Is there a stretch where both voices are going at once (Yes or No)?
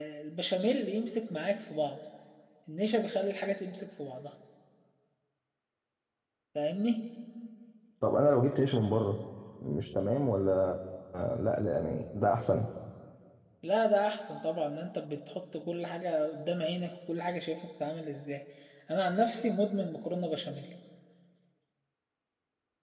No